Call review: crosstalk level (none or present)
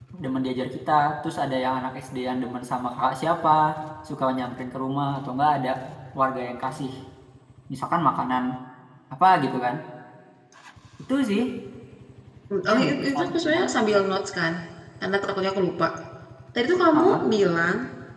present